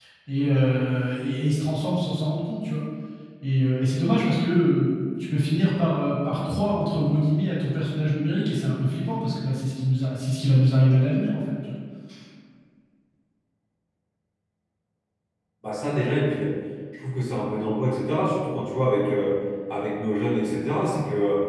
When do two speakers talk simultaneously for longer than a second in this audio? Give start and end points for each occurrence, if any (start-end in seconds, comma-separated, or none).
none